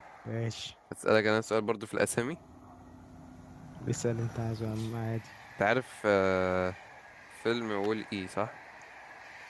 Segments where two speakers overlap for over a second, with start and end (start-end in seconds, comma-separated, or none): none